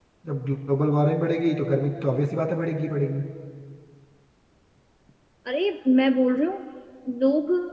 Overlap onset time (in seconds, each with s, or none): none